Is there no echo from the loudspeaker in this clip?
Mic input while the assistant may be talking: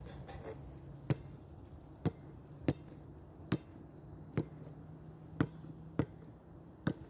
Yes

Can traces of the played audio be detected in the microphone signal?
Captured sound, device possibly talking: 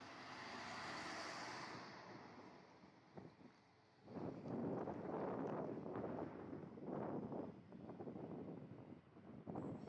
No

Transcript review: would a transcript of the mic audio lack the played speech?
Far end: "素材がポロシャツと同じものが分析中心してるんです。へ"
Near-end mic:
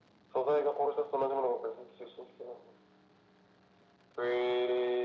No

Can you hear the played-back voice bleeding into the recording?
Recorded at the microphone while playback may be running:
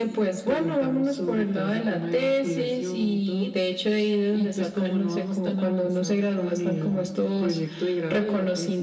Yes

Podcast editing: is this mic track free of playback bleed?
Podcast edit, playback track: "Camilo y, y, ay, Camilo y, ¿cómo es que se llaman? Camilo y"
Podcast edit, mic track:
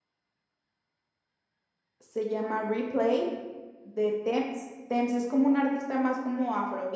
Yes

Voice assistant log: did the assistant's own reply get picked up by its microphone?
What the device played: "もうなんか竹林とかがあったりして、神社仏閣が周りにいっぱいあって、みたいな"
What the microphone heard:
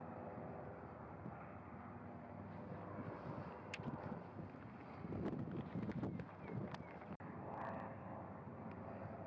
No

